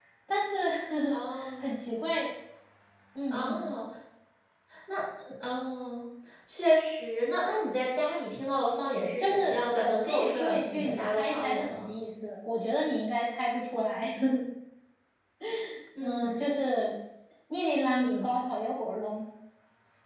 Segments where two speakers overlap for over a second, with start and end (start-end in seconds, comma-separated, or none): 9.2-11.9